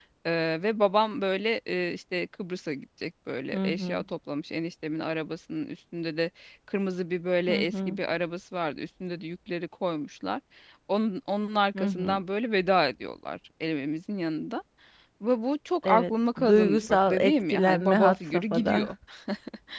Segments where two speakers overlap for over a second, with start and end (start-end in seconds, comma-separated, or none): 15.8-18.9